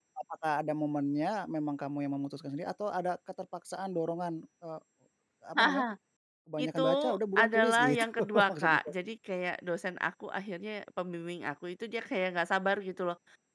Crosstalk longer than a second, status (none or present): present